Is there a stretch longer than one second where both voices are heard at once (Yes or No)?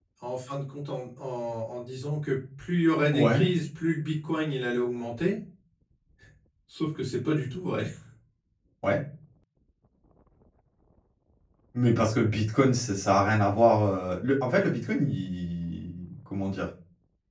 No